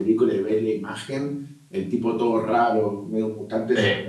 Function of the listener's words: listening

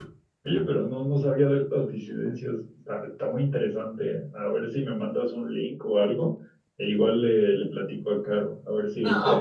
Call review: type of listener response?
taking over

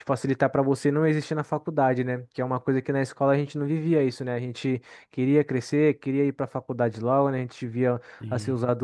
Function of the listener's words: listening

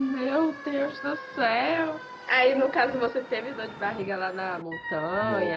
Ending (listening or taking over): taking over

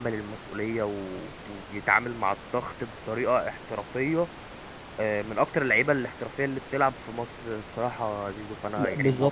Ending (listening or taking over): taking over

